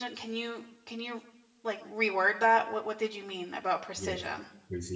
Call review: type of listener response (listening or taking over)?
taking over